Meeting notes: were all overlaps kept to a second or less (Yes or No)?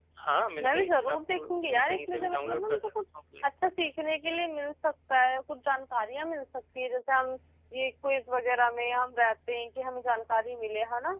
No